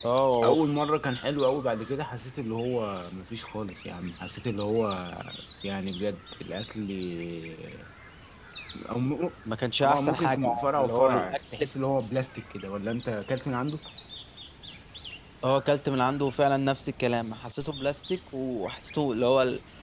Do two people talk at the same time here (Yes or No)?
Yes